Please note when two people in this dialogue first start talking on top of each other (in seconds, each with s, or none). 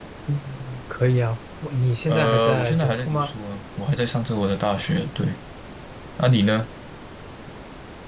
2.1 s